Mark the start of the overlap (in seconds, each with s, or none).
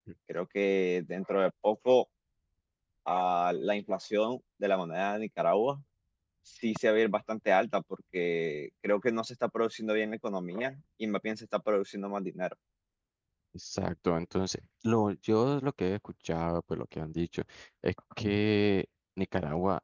none